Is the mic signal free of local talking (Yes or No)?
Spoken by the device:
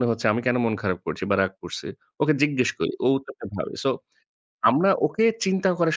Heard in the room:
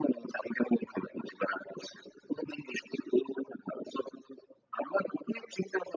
Yes